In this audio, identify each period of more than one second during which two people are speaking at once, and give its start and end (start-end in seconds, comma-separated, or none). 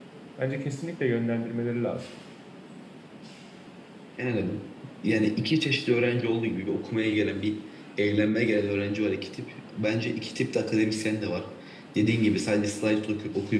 none